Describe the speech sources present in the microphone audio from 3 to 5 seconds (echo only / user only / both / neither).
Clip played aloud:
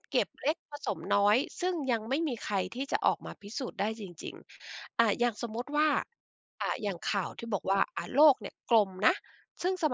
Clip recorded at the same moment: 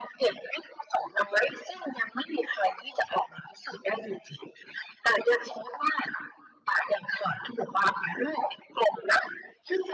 echo only